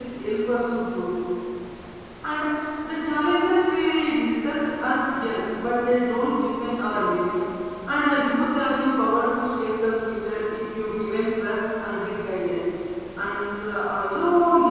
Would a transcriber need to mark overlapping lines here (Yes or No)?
No